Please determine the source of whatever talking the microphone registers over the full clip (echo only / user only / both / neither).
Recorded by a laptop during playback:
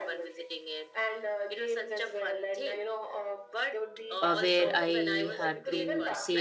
both